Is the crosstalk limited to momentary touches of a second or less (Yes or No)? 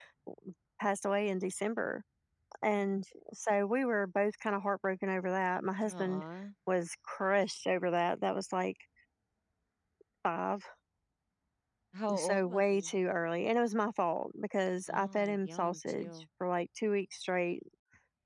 No